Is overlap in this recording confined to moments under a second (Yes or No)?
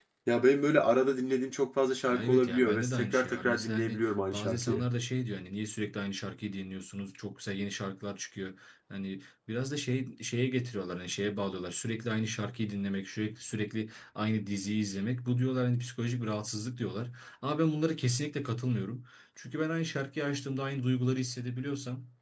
No